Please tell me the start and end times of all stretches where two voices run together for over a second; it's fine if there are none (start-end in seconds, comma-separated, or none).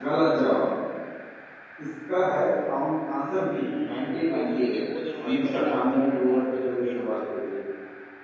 3.6-4.8, 5.2-7.5